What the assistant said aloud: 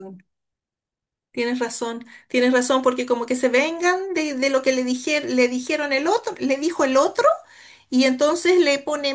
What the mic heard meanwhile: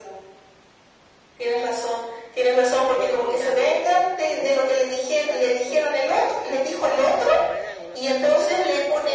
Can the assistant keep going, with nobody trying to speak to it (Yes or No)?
No